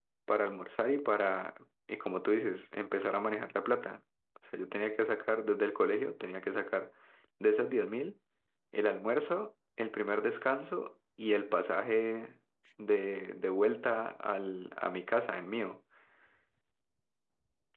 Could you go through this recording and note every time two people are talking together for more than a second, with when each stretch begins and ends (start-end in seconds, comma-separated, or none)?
none